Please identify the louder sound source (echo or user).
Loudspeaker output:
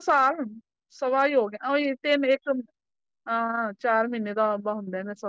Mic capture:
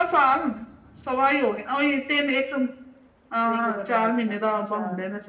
echo